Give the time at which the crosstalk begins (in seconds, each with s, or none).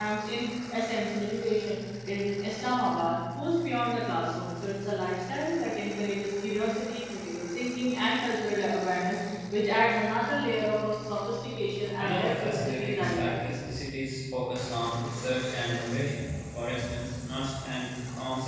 12.0 s